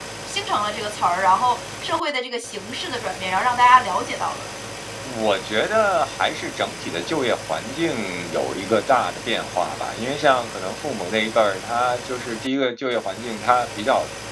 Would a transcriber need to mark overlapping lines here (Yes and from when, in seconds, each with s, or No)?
No